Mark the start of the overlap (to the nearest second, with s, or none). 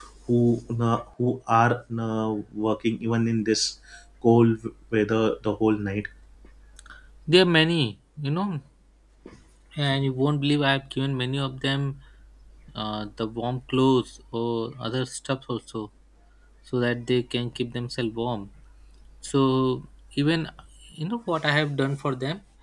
none